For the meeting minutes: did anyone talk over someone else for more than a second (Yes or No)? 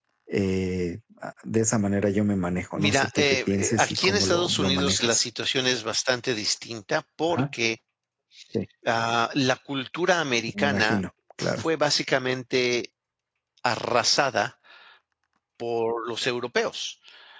Yes